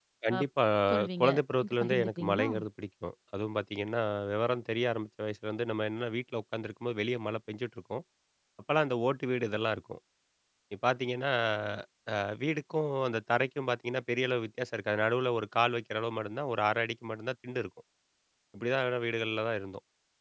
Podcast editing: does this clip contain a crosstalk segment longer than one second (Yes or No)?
Yes